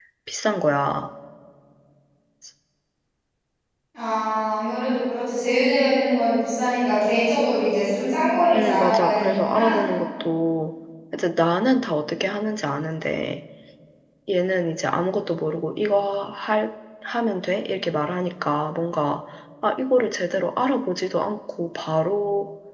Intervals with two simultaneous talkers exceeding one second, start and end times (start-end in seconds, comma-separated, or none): 8.5-9.8